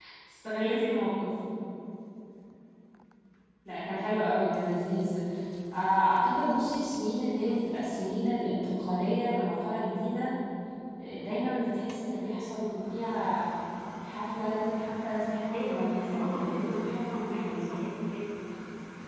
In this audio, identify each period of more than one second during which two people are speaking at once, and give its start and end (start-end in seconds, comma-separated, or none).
15.5-17.7